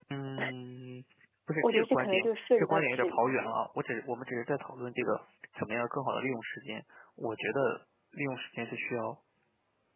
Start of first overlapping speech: 1.6 s

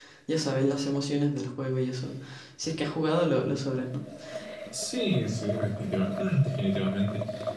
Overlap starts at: none

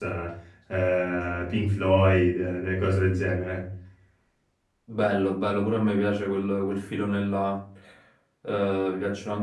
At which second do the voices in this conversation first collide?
none

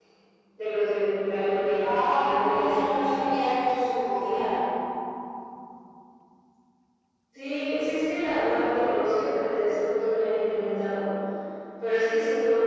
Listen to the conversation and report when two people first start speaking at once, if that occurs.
1.8 s

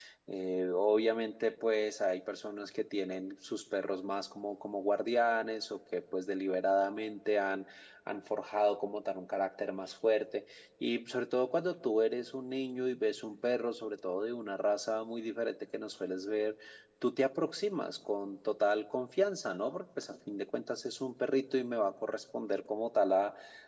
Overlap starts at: none

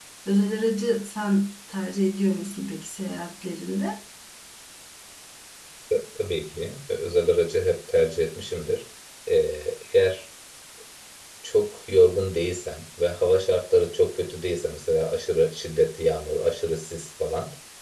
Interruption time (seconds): none

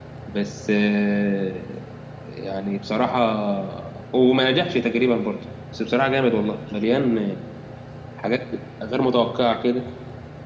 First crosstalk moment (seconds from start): none

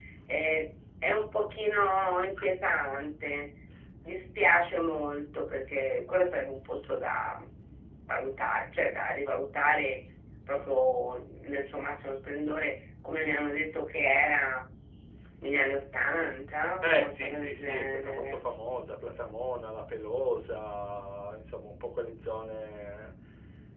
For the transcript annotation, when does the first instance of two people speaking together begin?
16.8 s

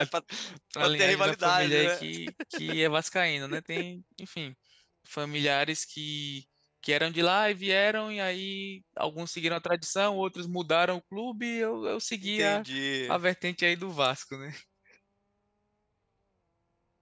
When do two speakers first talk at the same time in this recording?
0.8 s

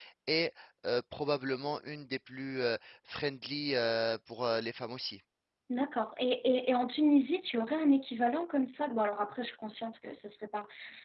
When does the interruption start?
none

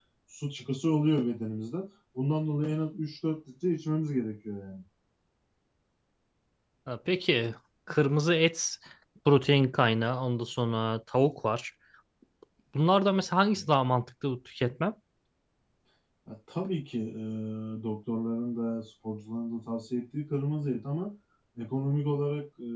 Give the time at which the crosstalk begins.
none

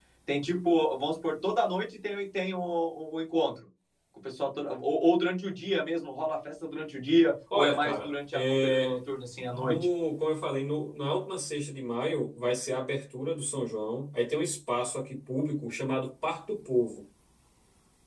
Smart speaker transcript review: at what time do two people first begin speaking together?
7.5 s

